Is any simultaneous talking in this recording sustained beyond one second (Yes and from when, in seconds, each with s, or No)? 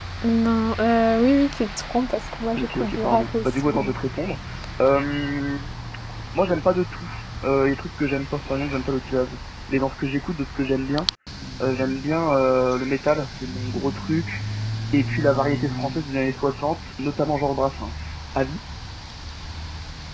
Yes, from 2.6 s